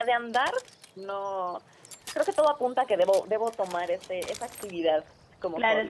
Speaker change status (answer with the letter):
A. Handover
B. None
A